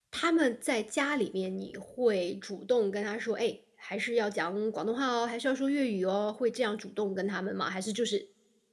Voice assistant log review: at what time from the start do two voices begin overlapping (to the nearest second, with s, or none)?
none